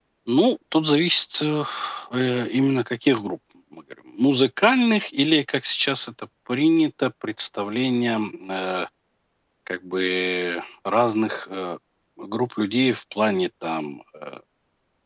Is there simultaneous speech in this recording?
No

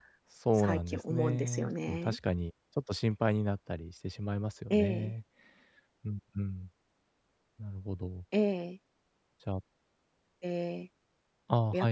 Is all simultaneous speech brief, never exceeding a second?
No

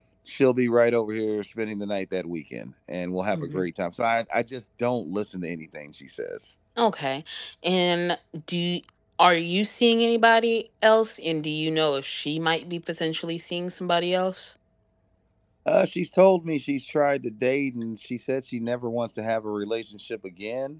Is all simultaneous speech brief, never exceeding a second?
Yes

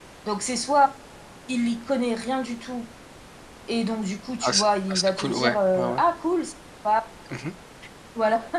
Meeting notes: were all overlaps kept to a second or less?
No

